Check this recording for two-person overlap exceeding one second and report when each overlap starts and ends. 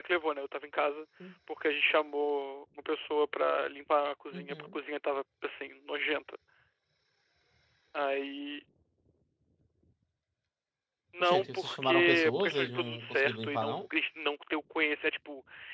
11.2-13.8

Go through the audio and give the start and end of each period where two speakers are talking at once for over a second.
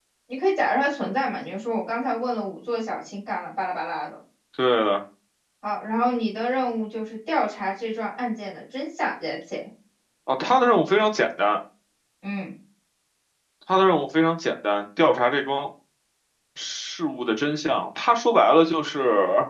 none

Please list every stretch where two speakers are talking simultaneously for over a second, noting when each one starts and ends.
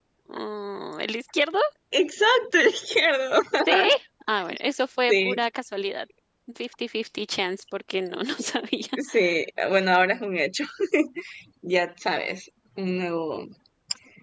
none

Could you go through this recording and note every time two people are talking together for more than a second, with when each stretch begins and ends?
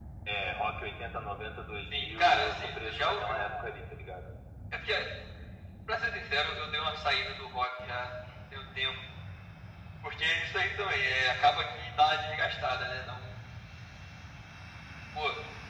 1.9-3.8

